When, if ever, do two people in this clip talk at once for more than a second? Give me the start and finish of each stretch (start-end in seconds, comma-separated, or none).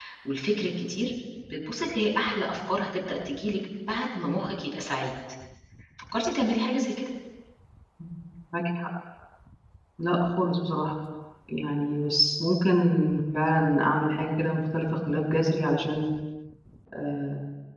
none